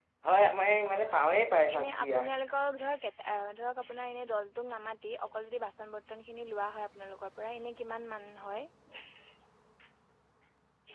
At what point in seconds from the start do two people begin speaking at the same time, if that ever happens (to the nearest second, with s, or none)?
1 s